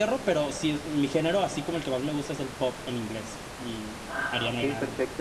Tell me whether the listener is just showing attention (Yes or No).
No